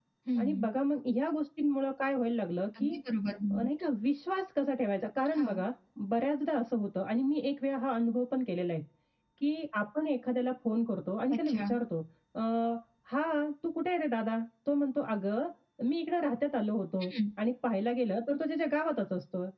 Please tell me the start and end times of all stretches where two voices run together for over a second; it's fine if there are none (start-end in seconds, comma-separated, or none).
none